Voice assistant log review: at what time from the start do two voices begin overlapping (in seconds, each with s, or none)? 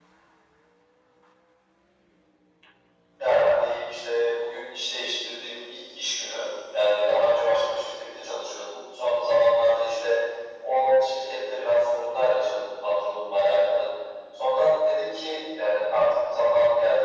none